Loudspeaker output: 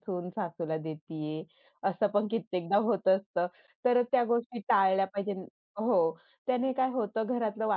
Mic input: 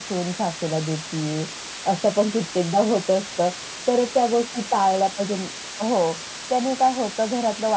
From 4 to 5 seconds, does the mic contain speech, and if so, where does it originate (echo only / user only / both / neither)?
echo only